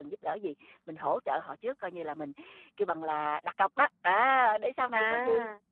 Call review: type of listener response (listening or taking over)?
listening